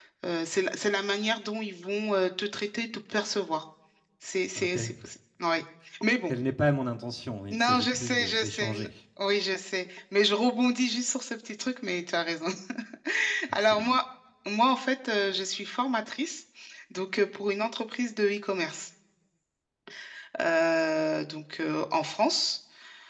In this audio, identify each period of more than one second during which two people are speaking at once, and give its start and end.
7.5-8.9

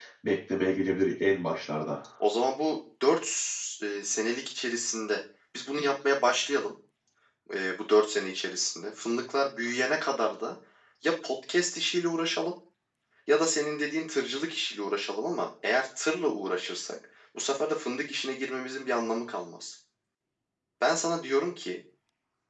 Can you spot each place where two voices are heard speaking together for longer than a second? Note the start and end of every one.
none

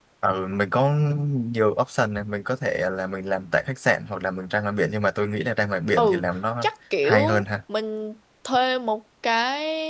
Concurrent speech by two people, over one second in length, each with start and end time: none

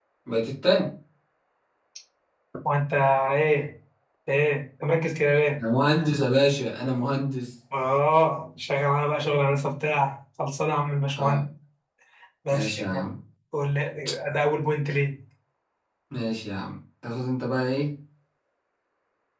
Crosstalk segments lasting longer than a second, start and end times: none

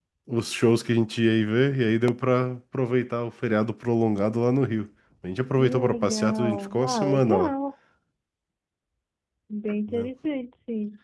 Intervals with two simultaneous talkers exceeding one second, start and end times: 5.6-7.5

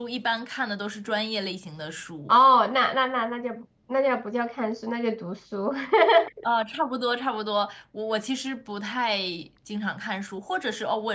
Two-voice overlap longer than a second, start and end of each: none

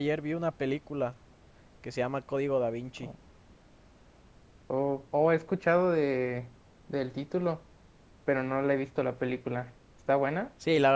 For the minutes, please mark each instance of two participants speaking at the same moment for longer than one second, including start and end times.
none

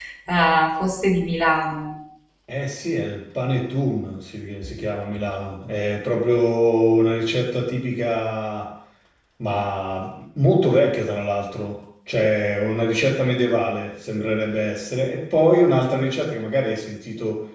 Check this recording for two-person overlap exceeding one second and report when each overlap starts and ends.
none

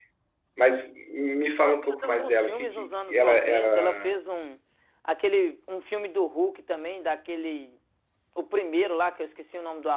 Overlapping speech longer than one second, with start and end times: 1.6-4.2

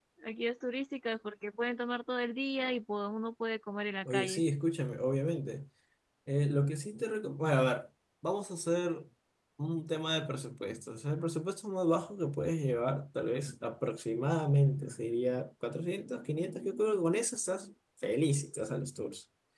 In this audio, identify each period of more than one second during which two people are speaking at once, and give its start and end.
none

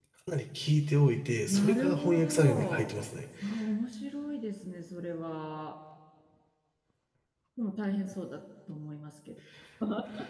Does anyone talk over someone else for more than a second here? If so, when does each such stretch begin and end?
1.5-2.9

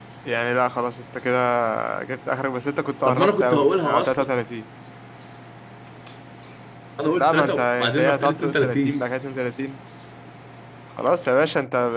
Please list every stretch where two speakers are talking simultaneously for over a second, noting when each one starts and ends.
3.0-4.3, 7.1-9.0

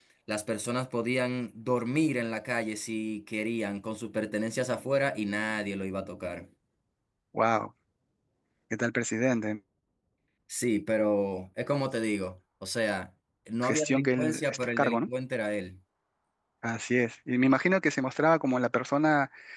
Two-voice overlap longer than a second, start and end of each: 13.6-15.1

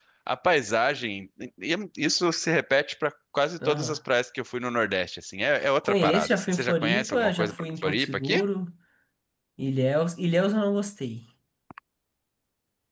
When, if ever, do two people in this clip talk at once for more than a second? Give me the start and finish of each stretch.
5.8-8.5

